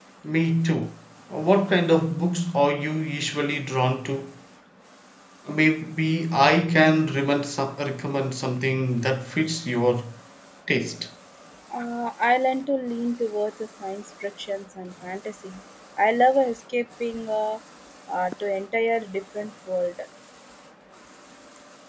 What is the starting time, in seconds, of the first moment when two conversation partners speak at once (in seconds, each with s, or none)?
none